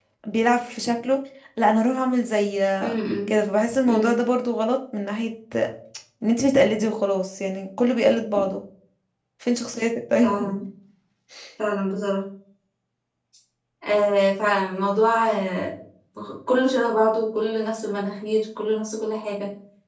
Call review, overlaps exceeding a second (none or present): none